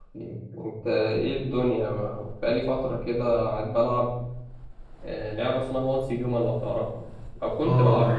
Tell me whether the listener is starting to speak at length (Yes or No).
Yes